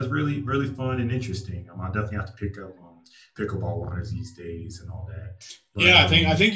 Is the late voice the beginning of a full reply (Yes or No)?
Yes